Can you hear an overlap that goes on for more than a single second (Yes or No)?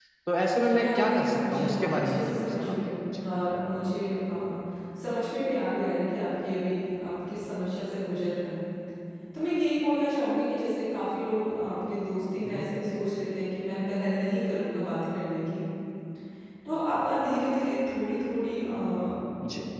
Yes